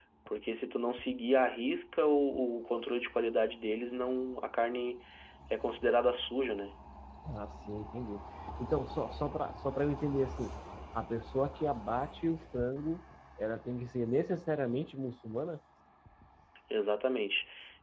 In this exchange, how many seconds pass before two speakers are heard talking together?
none

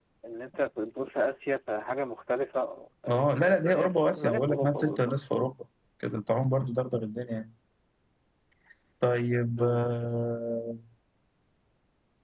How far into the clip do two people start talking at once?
3.4 s

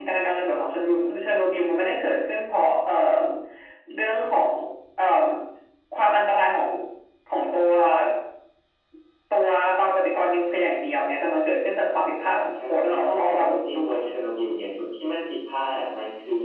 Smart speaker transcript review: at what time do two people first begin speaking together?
12.5 s

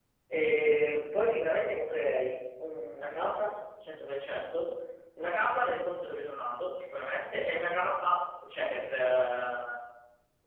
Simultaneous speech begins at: none

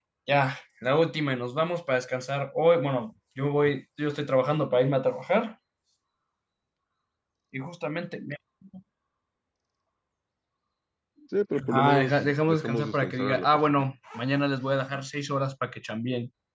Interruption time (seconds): 11.7 s

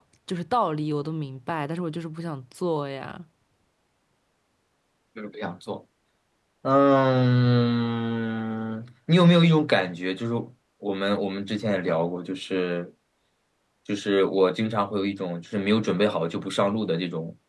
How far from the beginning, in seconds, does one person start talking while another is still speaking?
none

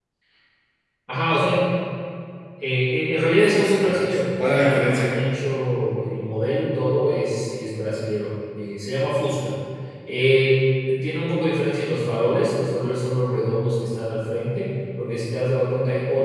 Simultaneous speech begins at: 3.4 s

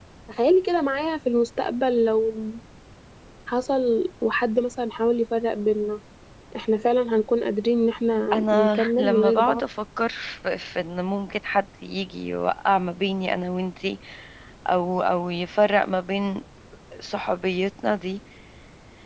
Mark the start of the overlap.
8.3 s

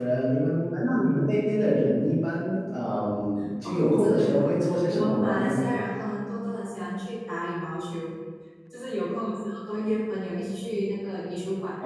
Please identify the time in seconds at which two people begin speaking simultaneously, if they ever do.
3.6 s

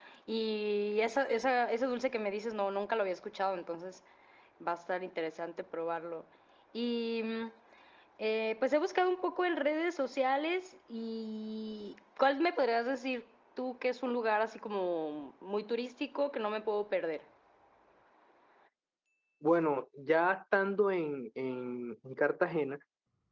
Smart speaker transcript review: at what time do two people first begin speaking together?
none

